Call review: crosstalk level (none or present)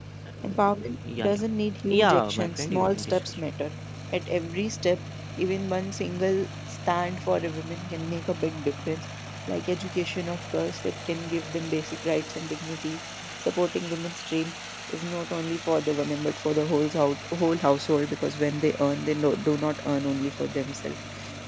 present